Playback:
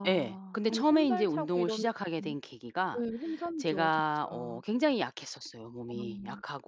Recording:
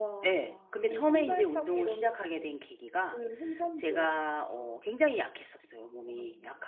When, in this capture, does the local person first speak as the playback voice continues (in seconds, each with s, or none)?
none